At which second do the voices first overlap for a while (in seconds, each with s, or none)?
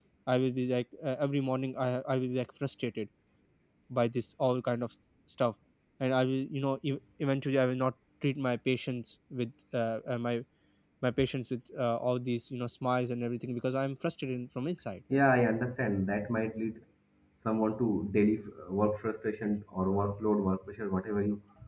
none